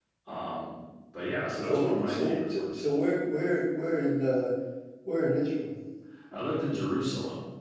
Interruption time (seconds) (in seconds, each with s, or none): 1.6 s